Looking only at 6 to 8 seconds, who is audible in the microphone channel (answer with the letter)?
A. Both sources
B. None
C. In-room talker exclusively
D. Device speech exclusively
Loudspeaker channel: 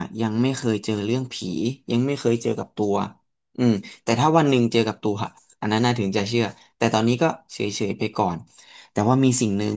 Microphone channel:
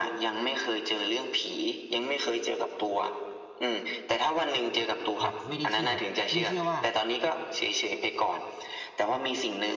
A